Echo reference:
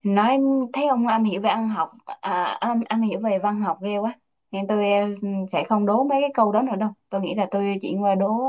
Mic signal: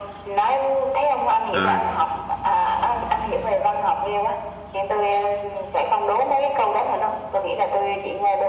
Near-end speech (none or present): present